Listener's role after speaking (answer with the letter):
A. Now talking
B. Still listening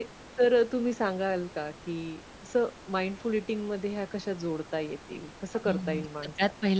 A